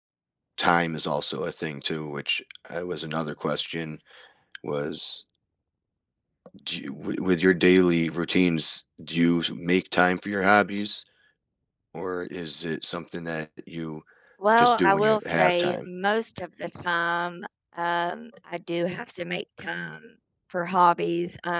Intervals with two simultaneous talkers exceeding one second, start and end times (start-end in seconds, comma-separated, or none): 14.6-15.8